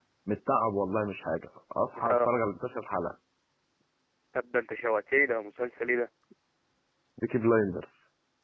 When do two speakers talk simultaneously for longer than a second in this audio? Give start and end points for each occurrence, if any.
none

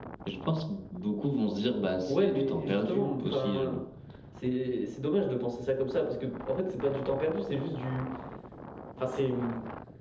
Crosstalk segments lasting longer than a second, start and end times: 2.1-3.6

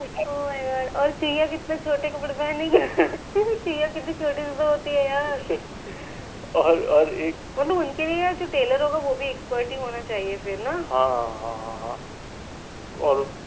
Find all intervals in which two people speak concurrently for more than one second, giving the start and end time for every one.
none

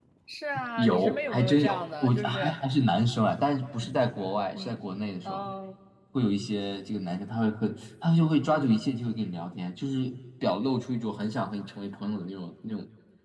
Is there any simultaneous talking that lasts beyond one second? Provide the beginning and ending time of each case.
0.8-2.5

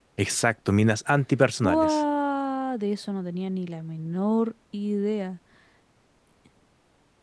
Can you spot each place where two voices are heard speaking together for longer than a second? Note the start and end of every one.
none

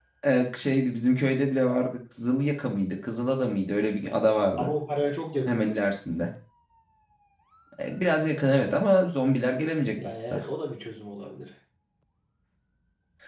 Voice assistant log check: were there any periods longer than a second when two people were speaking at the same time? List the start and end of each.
none

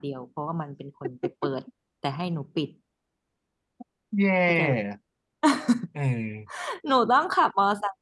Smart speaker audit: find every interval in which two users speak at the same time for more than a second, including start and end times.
none

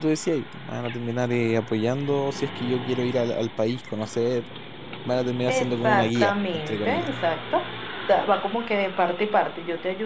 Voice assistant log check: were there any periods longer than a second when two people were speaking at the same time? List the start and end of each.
5.5-7.1

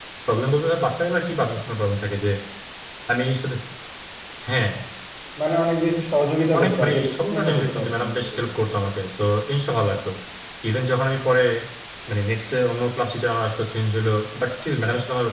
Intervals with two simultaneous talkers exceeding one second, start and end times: 6.6-8.4

